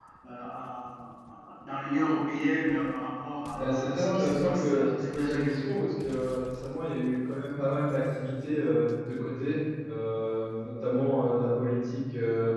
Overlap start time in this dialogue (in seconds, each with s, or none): 3.6 s